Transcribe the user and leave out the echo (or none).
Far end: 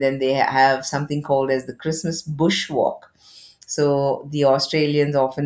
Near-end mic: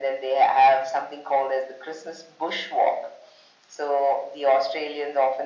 none